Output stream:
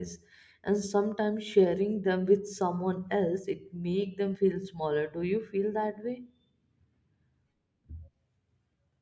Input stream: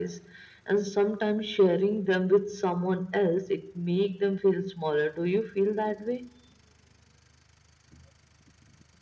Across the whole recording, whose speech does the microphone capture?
echo only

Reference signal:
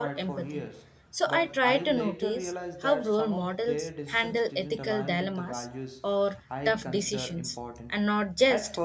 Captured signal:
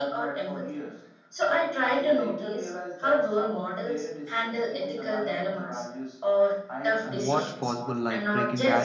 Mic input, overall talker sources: both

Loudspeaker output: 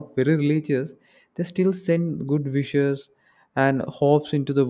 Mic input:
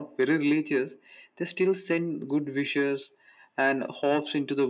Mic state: echo only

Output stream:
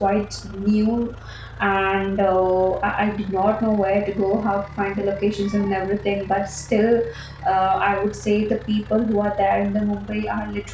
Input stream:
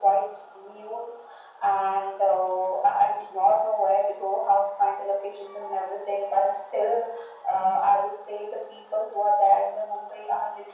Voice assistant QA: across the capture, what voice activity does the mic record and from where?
echo only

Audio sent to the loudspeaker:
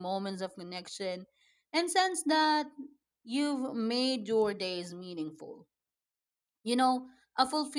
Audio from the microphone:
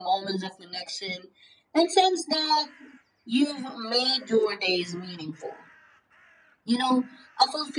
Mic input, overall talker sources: echo only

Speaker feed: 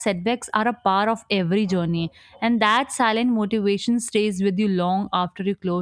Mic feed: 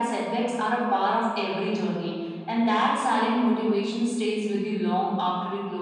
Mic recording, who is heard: echo only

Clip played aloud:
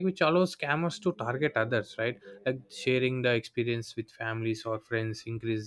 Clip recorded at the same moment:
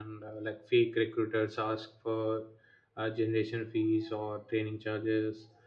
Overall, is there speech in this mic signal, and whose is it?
user only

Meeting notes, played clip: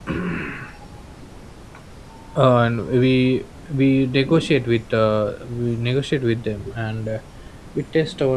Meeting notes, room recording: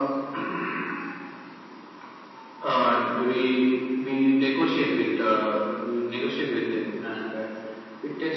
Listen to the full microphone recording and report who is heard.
echo only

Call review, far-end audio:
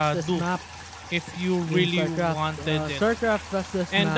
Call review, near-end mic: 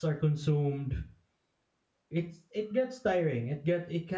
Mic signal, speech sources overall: user only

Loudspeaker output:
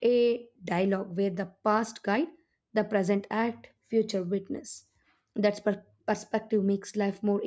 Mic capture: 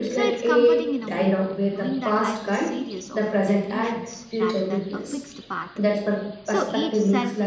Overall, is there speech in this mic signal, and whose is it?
both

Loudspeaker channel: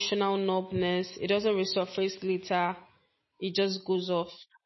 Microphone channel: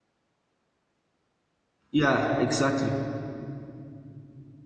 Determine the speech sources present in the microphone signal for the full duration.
user only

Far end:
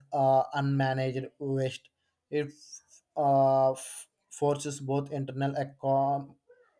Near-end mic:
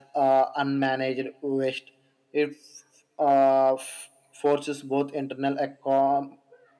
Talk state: echo only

